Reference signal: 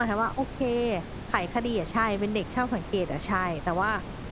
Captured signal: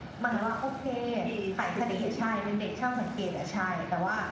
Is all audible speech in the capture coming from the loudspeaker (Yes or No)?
No